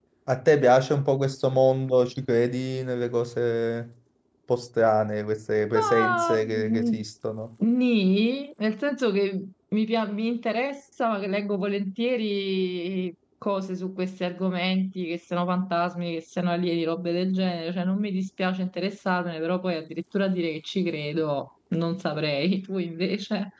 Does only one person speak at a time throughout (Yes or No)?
No